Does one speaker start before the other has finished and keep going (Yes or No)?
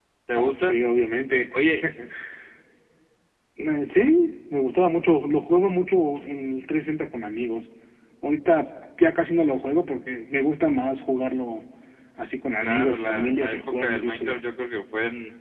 Yes